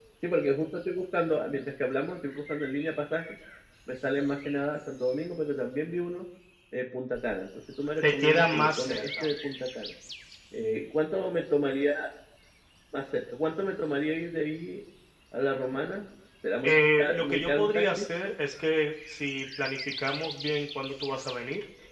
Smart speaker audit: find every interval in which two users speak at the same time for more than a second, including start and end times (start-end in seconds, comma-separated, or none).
8.0-9.3, 16.6-18.1